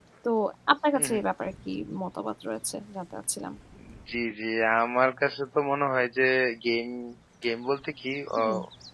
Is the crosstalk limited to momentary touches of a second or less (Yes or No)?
Yes